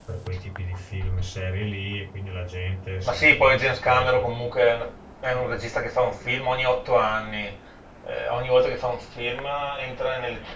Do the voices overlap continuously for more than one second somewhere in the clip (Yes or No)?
Yes